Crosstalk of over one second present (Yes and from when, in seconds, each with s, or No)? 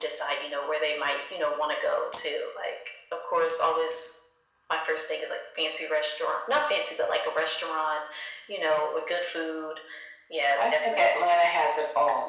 No